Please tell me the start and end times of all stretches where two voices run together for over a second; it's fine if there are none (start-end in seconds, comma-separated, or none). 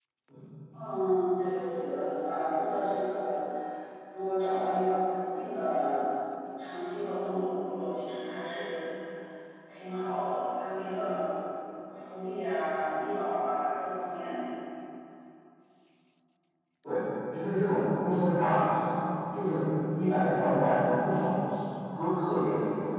none